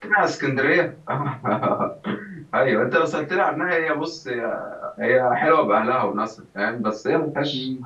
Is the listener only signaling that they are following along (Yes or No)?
Yes